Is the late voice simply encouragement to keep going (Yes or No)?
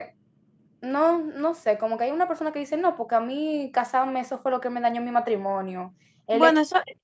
Yes